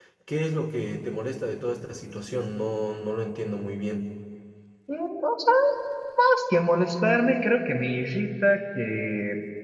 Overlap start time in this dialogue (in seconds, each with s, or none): none